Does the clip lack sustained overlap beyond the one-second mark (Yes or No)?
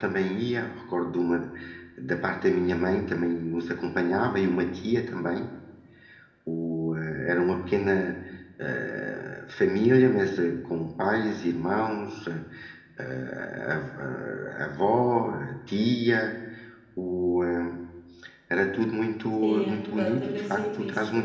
No